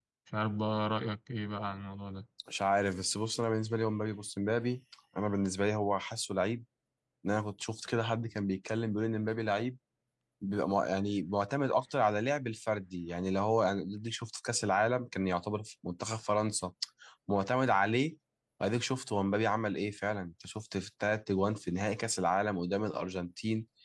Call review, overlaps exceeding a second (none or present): none